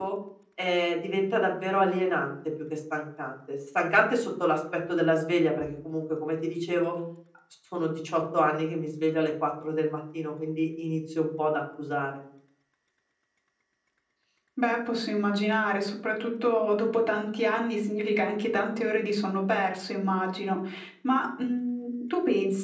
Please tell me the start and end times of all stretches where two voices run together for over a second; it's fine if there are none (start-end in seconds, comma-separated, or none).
none